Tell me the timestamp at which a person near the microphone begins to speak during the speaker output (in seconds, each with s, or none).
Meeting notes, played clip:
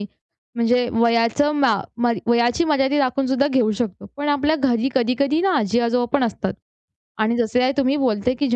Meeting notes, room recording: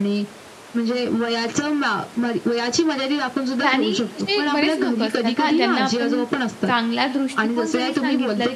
3.7 s